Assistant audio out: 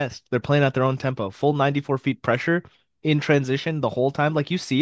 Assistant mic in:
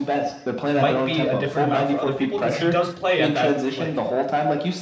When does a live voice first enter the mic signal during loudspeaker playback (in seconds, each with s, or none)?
0.7 s